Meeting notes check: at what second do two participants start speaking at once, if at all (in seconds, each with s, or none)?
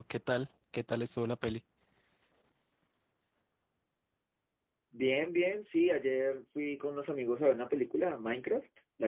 none